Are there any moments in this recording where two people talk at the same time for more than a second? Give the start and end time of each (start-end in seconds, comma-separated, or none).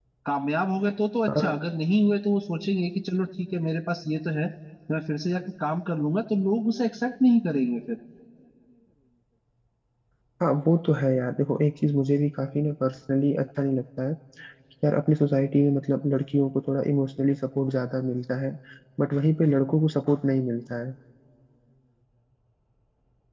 none